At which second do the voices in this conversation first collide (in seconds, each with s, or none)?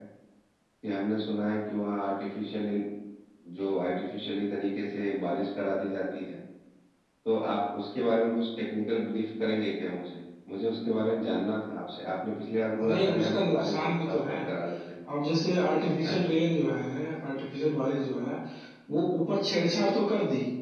12.8 s